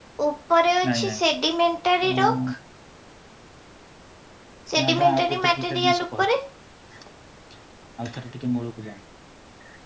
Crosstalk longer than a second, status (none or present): present